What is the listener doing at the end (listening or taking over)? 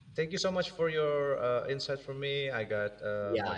taking over